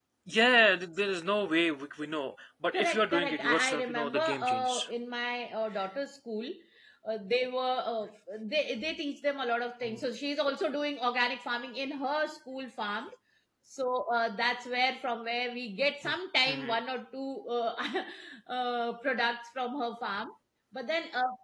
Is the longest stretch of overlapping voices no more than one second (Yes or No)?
No